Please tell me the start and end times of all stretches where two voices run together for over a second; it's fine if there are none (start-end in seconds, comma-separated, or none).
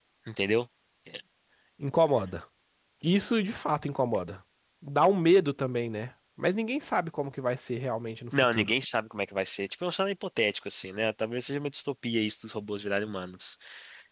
none